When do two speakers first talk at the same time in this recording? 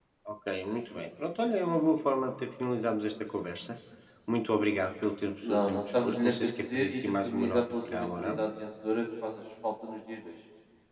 5.4 s

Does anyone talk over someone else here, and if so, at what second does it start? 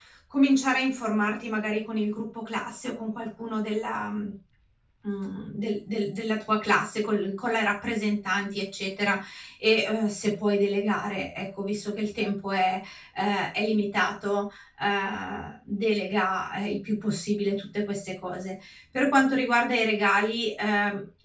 none

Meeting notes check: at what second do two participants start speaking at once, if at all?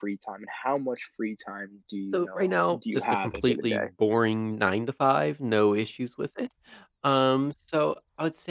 2.1 s

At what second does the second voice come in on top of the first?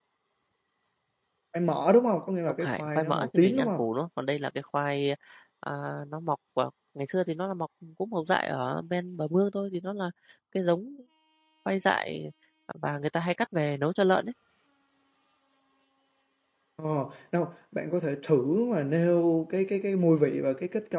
2.6 s

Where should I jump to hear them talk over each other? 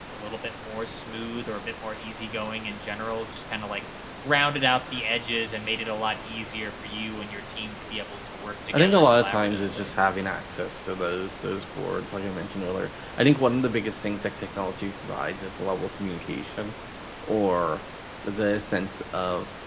8.7 s

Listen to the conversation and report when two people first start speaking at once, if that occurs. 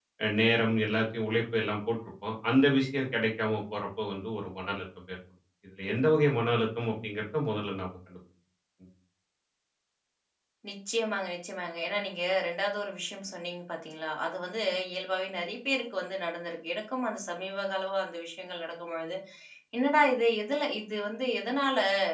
none

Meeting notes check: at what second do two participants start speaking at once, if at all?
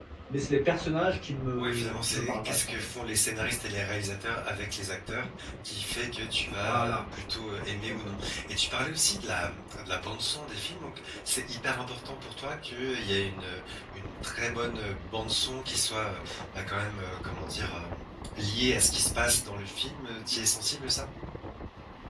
1.6 s

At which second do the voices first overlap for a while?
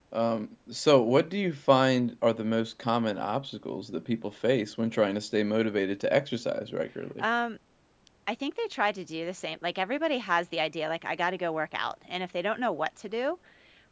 none

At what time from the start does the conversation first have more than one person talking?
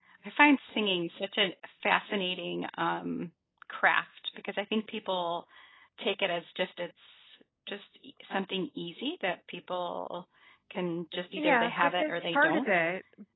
11.4 s

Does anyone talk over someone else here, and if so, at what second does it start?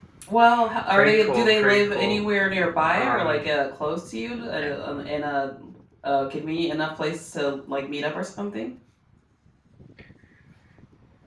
0.9 s

